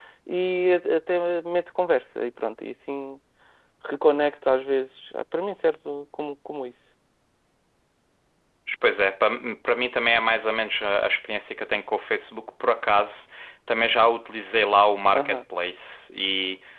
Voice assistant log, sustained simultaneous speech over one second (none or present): none